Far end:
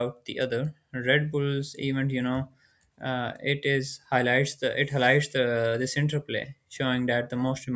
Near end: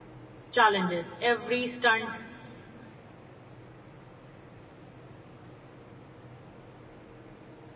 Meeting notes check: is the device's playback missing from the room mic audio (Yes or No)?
Yes